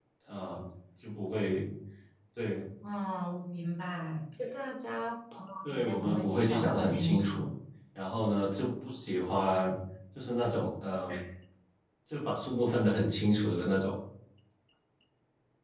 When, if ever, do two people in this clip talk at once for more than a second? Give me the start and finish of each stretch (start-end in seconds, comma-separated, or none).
5.6-7.4